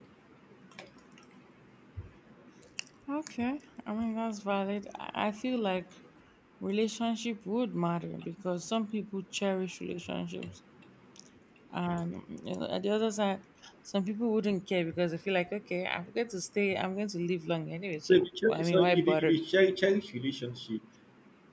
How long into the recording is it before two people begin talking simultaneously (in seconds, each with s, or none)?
18.1 s